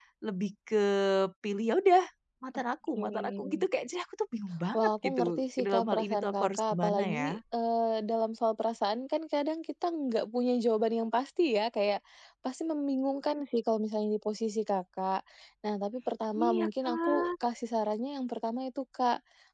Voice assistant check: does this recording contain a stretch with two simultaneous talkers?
Yes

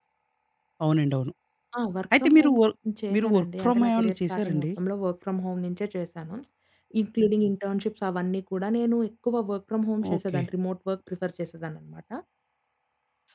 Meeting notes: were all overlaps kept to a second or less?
No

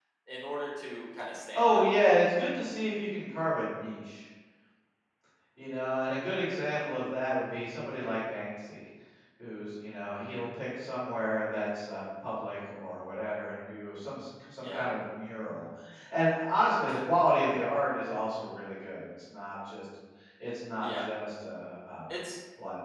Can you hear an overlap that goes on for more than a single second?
No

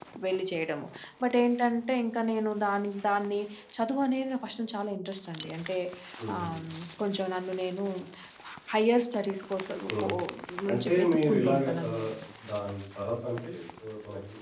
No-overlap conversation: No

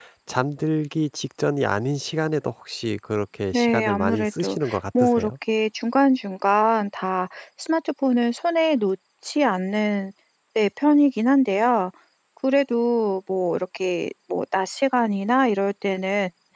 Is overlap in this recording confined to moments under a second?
No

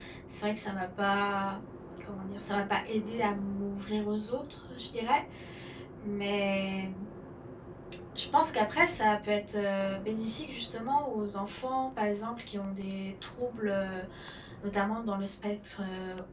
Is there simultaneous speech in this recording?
No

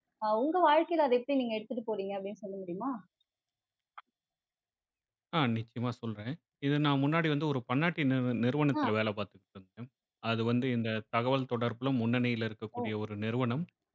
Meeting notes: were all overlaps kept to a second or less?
Yes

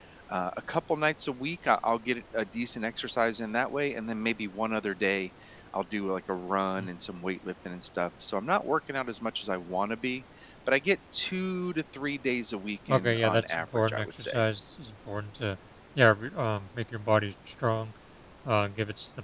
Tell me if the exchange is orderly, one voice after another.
No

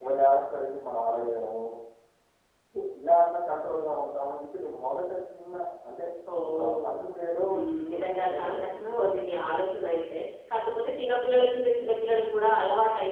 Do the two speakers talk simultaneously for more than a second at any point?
Yes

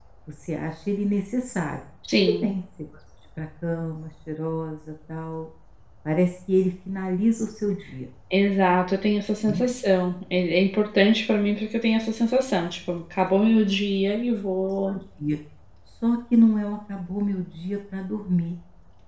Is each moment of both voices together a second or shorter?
Yes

